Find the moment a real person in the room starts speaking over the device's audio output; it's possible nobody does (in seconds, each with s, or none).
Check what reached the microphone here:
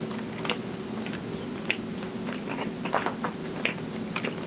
none